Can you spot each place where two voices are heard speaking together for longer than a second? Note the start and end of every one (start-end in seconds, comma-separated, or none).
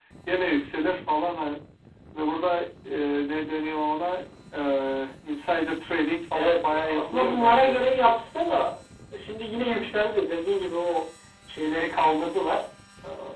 6.3-7.8